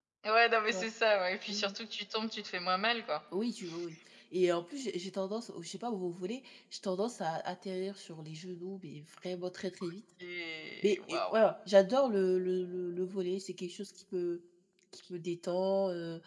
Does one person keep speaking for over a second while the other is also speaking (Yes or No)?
No